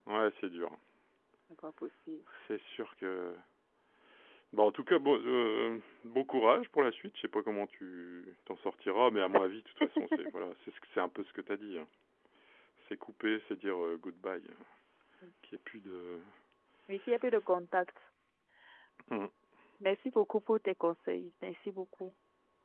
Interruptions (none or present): none